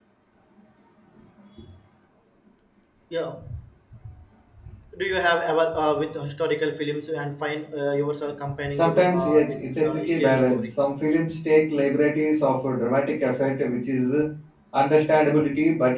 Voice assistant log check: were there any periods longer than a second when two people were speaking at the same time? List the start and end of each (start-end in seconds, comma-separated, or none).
8.7-10.6